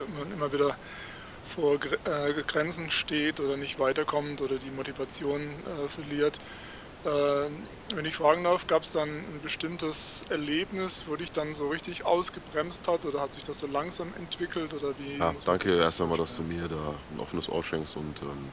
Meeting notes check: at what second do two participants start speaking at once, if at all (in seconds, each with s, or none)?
15.2 s